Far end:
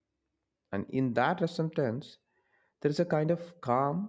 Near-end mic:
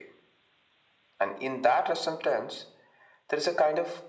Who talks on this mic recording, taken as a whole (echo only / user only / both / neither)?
echo only